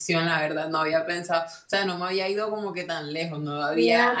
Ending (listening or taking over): taking over